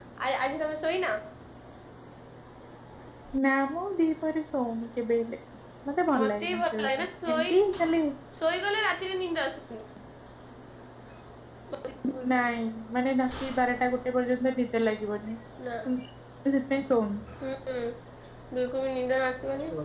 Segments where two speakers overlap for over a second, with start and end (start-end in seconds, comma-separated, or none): 6.2-7.5